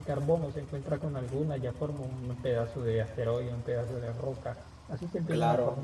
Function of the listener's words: listening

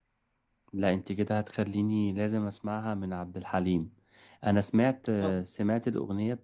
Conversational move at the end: listening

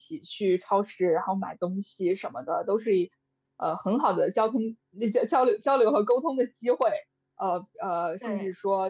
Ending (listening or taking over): listening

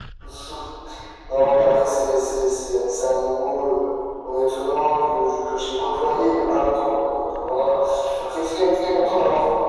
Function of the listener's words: listening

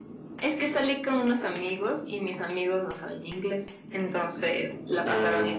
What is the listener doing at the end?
listening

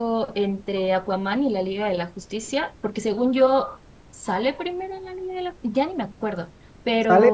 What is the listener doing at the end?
taking over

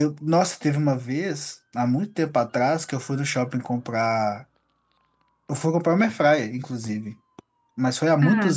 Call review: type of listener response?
listening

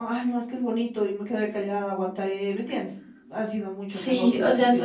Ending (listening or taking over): taking over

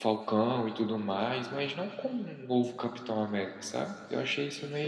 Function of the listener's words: taking over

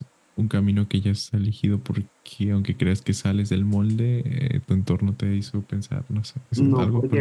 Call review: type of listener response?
taking over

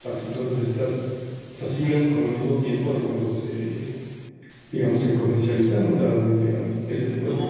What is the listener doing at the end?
taking over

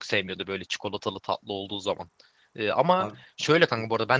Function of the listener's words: listening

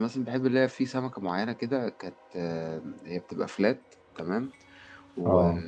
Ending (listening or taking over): listening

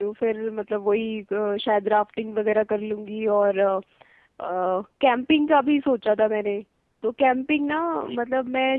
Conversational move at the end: listening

